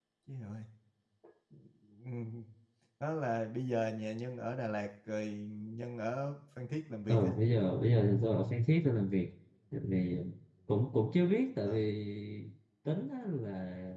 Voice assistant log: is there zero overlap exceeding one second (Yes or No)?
Yes